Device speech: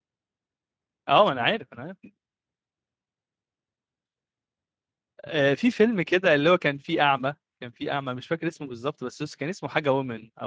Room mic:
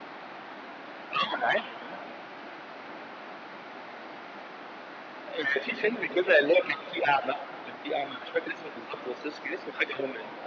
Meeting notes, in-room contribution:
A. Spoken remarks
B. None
B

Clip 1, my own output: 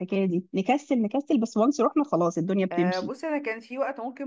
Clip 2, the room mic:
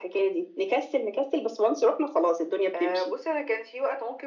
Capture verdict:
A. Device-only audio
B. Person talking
A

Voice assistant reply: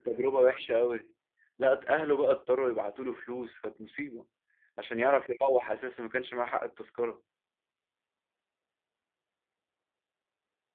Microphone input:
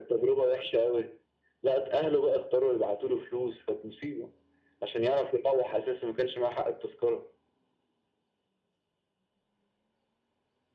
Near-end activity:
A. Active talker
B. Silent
B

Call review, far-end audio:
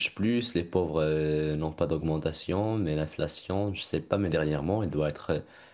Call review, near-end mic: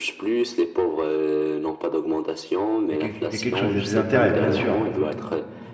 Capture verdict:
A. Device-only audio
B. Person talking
B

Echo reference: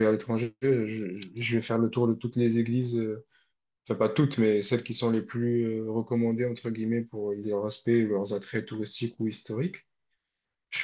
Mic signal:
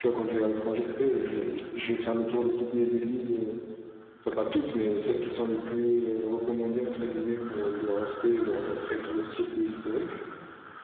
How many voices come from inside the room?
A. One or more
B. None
B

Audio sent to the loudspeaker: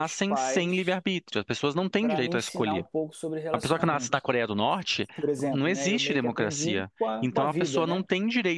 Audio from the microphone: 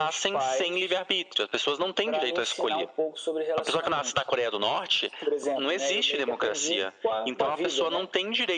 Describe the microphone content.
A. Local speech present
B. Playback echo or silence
B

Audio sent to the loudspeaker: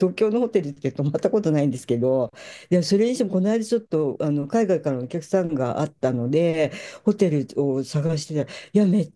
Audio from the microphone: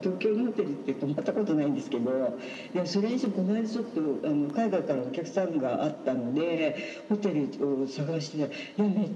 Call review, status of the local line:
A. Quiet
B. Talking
A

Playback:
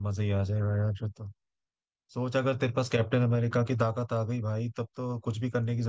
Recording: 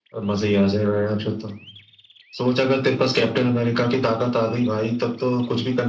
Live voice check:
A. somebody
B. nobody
B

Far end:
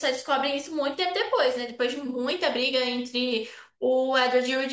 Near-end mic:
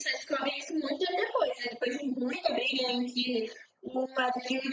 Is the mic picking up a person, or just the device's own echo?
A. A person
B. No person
B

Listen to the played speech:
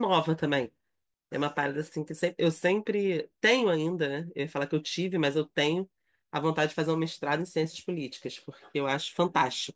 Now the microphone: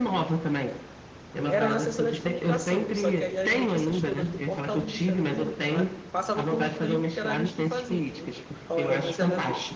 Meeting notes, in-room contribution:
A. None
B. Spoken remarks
B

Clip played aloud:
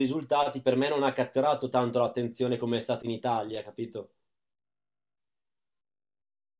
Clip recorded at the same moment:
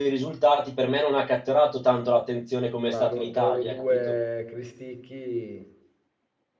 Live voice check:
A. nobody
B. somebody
B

